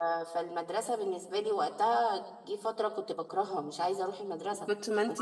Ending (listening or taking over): taking over